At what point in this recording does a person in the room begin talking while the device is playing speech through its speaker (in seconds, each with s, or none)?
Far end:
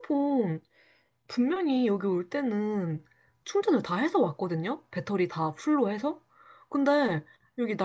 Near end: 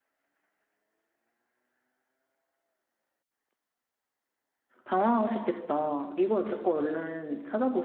4.8 s